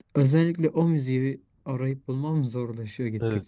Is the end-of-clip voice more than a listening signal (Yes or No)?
Yes